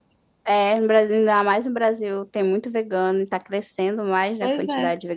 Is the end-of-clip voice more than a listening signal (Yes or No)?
Yes